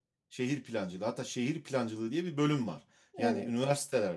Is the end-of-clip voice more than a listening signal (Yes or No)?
No